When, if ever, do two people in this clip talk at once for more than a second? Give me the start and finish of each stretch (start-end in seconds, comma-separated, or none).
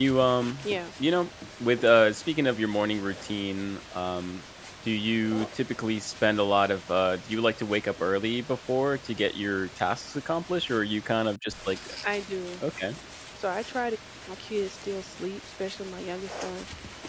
none